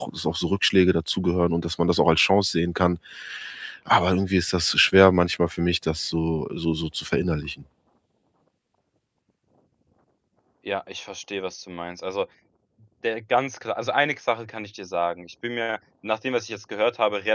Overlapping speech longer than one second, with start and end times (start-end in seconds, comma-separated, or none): none